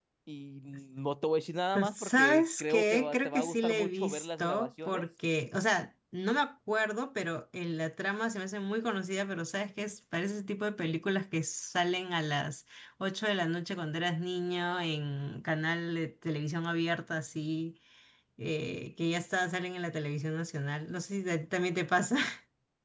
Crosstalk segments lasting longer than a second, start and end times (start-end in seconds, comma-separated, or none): 1.8-5.0